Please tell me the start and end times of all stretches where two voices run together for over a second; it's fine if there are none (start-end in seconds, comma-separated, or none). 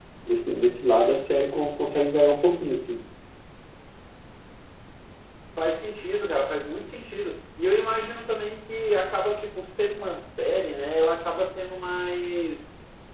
none